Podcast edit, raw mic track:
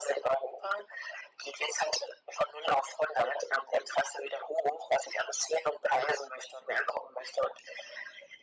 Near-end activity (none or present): none